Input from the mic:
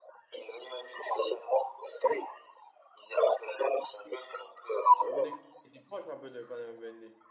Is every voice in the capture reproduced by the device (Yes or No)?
No